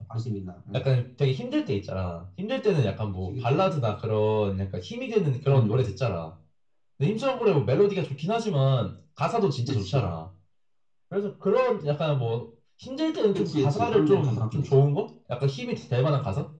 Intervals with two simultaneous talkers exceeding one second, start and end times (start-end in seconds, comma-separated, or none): 13.3-14.7